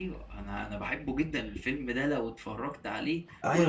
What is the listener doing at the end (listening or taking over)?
taking over